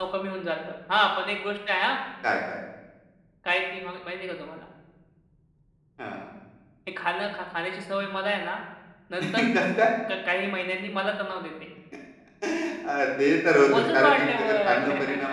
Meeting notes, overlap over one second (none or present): present